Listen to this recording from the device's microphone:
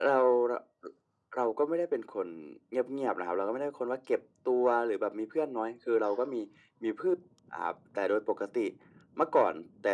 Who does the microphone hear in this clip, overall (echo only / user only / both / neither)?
echo only